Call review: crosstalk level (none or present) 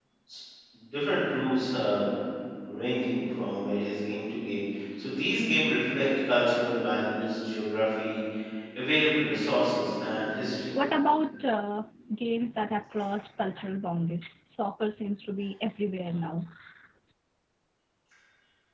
none